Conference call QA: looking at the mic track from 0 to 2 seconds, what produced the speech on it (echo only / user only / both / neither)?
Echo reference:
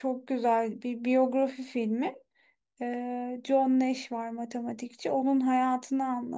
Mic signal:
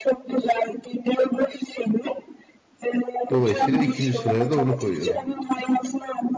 echo only